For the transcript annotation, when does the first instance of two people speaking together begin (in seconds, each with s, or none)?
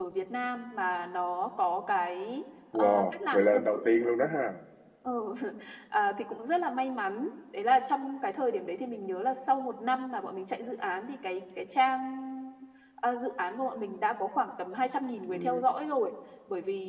2.8 s